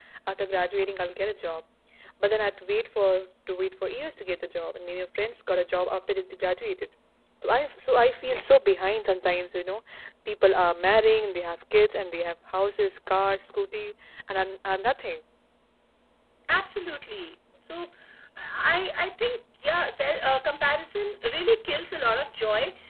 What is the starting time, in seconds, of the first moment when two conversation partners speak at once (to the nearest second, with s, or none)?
none